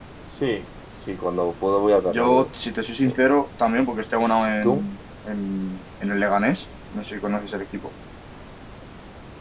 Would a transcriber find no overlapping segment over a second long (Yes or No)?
Yes